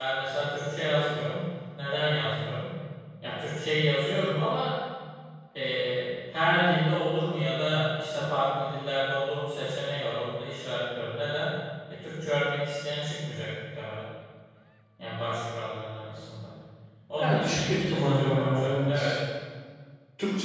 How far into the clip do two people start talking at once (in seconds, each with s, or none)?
17.2 s